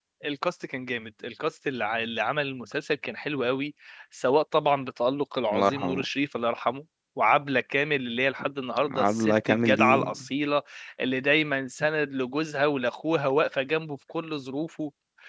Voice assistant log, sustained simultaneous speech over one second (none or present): present